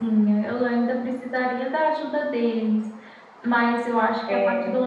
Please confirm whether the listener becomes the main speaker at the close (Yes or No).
No